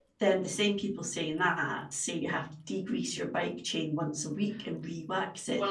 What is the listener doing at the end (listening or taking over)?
taking over